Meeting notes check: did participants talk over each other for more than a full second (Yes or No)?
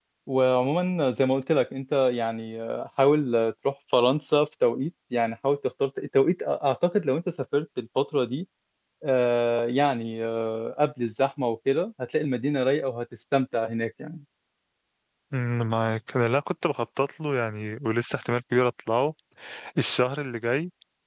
No